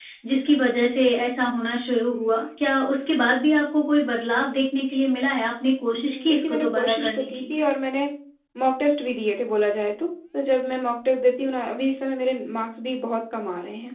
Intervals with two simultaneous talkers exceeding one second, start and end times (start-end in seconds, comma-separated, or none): 5.9-7.4